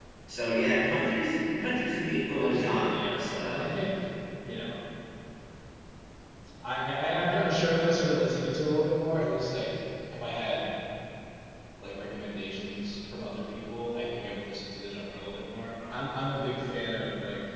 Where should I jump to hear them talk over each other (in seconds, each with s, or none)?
2.4 s